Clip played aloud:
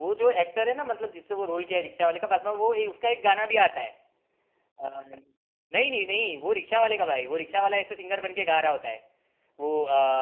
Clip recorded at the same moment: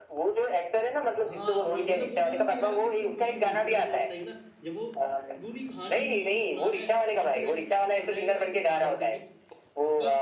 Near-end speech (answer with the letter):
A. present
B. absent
A